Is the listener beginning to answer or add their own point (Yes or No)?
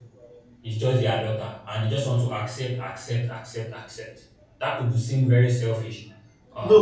Yes